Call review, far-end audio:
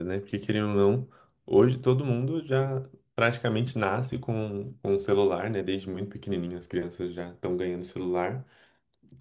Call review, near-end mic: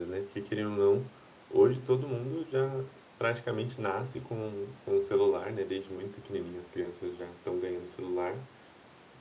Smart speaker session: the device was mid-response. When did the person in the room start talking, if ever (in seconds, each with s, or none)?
none